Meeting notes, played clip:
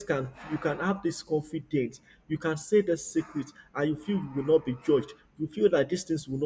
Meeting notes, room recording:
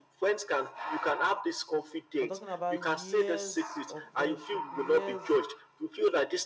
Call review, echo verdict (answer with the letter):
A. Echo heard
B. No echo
A